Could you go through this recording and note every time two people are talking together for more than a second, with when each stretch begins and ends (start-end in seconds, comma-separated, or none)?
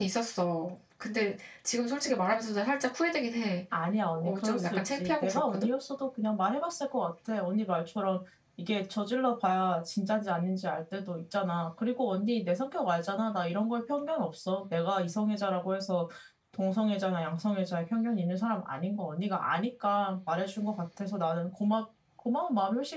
4.2-5.7